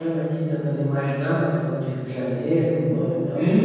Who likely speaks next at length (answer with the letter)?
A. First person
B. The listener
B